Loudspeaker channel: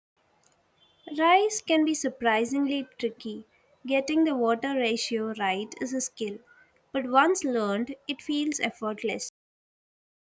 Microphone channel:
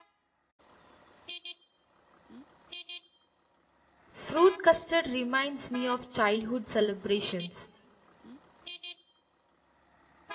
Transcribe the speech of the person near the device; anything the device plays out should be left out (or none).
Fruit custard reminds me of childhood celebrations.